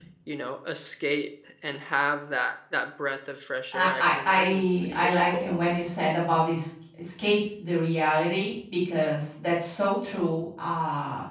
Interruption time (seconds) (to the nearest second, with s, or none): 4 s